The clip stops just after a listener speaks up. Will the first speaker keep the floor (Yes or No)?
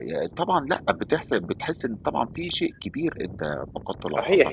No